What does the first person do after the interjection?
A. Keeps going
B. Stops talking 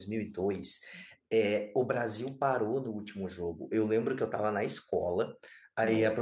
A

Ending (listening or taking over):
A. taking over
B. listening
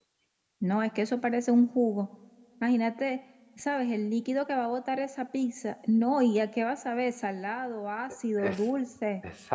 A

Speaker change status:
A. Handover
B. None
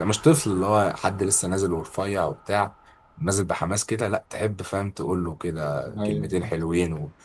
B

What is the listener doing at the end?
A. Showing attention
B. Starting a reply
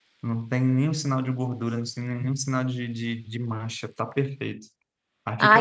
B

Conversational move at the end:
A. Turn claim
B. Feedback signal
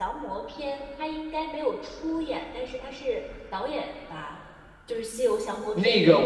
A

